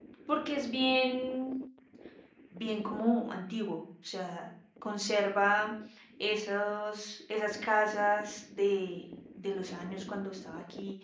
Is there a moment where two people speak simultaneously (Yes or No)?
No